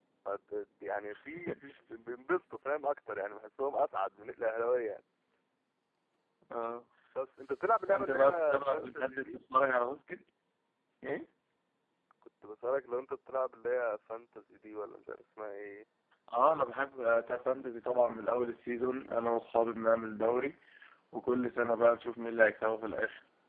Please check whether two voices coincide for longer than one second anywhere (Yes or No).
Yes